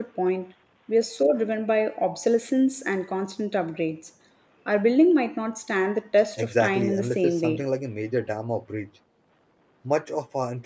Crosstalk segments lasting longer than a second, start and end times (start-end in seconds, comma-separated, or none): 6.4-7.6